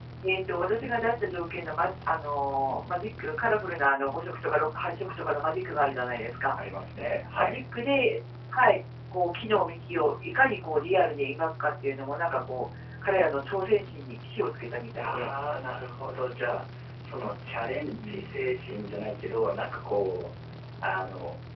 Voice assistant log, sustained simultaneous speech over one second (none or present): none